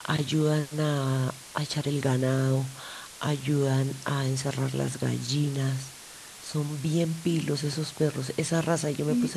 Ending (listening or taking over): listening